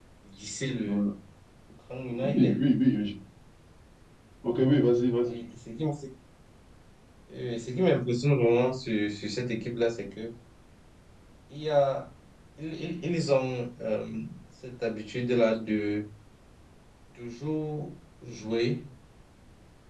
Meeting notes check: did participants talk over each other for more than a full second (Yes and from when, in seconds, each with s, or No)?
No